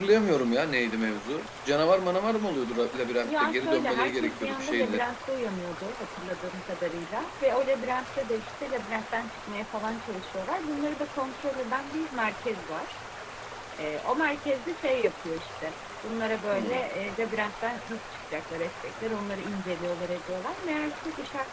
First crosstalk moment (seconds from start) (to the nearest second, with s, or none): 3 s